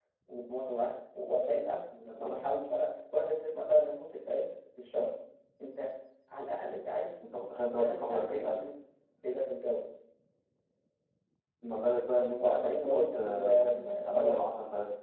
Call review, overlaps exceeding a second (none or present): present